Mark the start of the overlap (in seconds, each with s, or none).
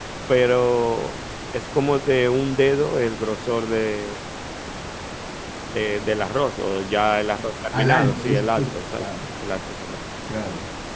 7.7 s